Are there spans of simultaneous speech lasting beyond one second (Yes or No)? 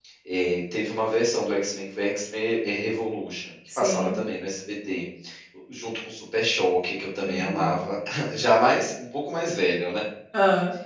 No